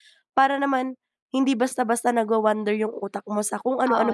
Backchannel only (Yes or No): No